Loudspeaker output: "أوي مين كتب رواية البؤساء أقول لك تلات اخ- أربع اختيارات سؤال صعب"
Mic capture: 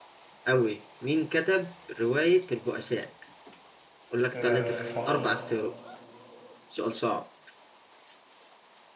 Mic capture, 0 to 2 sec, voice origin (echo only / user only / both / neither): echo only